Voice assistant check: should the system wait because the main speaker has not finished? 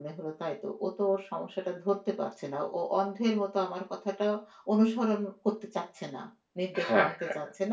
No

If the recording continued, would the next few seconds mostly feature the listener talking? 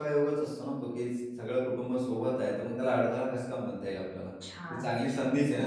Yes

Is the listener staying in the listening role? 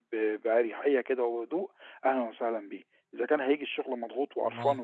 Yes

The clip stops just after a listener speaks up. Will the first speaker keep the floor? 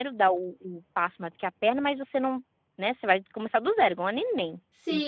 No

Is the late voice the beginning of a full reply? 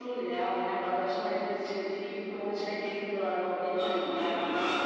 Yes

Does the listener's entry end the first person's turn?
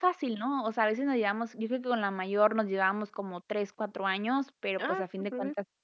No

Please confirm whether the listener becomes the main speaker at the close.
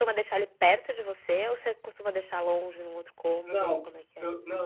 Yes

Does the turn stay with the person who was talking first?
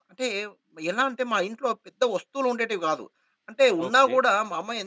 Yes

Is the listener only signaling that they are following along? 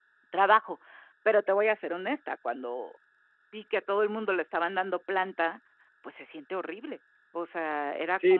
No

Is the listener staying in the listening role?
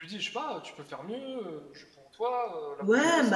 No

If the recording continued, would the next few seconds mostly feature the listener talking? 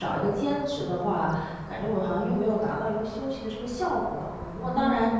No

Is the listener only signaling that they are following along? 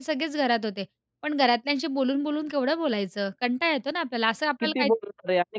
No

